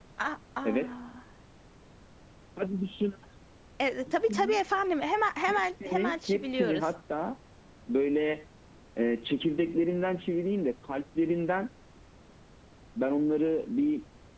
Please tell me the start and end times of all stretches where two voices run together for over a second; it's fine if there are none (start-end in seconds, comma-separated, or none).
5.5-6.9